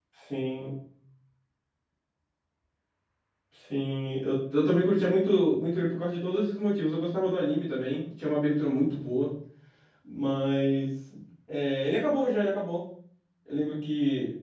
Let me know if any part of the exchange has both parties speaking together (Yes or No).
No